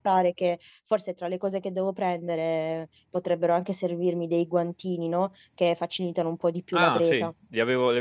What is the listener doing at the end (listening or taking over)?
taking over